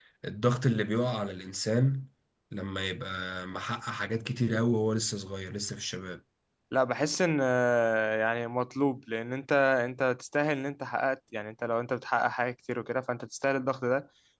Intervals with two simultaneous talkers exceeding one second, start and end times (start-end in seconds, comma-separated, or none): none